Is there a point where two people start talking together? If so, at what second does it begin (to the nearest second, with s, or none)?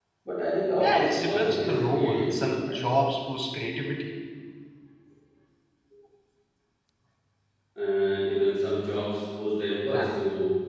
1 s